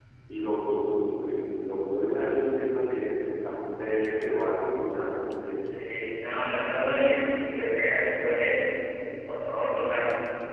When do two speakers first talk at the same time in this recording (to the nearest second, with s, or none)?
none